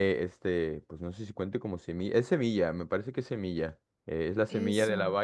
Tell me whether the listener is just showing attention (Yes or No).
Yes